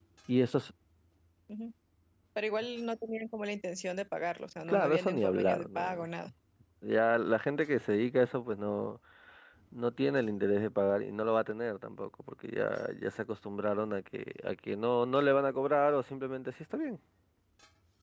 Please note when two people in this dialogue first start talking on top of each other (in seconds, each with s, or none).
4.7 s